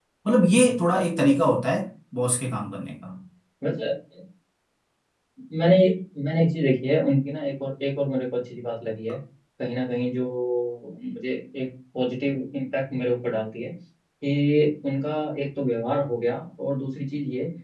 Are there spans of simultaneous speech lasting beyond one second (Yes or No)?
No